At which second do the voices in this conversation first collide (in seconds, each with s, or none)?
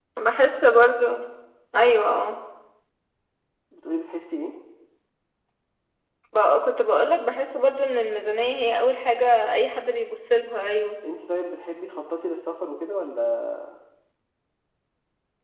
none